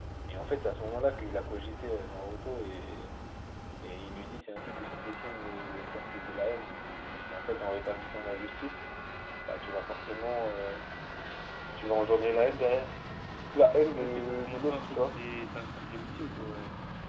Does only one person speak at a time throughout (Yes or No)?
No